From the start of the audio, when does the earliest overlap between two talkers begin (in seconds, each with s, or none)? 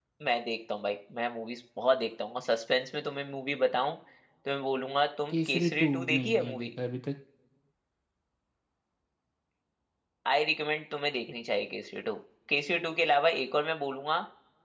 5.3 s